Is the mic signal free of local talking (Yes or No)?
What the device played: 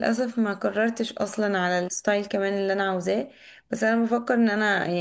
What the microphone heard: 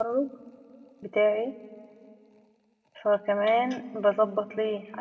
No